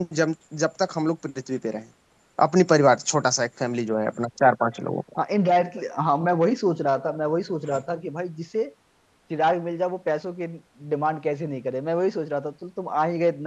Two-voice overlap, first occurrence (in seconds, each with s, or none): none